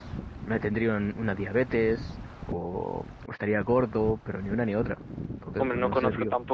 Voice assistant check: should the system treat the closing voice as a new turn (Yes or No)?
Yes